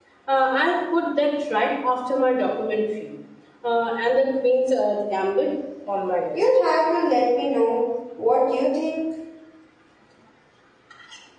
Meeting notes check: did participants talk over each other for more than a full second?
No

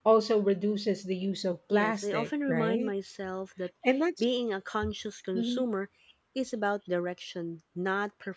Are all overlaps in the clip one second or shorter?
No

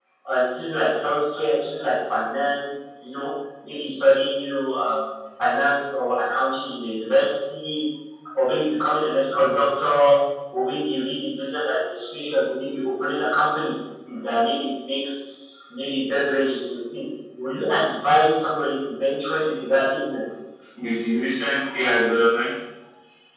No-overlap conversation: Yes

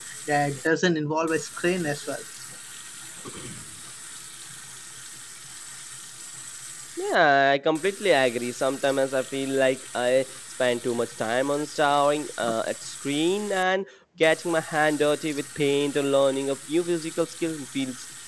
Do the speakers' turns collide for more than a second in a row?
No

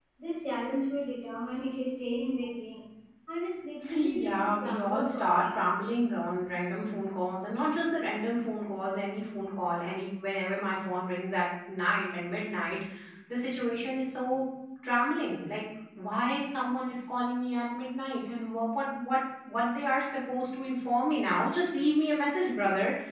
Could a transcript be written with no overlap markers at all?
No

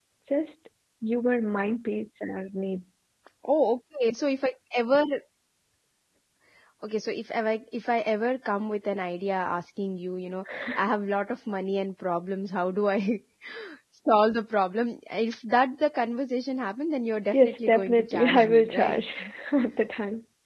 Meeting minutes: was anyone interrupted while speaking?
Yes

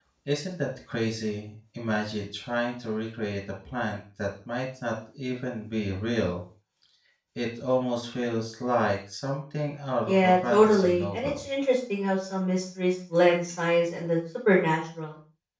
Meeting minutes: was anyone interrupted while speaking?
Yes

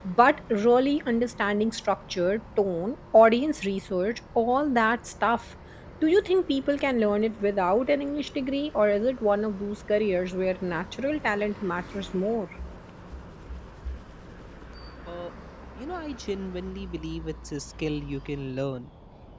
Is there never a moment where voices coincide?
Yes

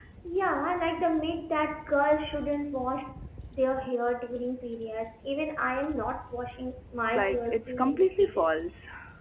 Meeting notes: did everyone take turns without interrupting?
No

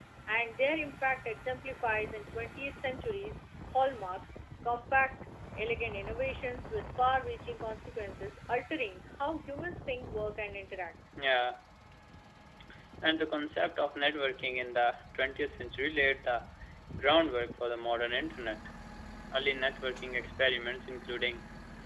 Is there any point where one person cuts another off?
No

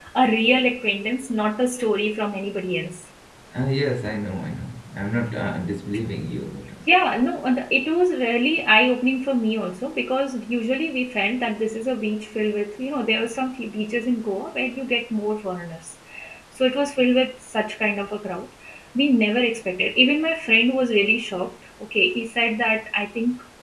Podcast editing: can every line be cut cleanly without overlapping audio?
Yes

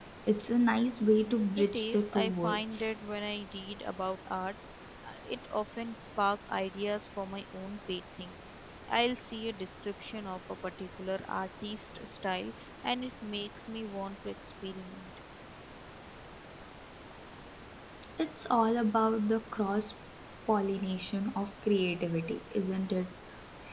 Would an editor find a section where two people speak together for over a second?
Yes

